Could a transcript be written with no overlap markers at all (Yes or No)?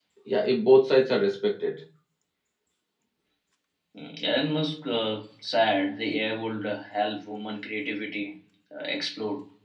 Yes